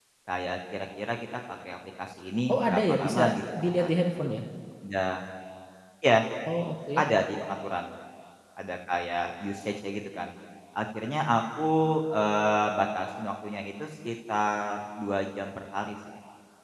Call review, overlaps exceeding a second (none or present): present